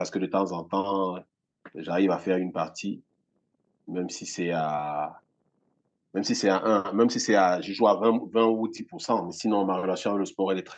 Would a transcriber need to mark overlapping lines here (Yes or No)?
No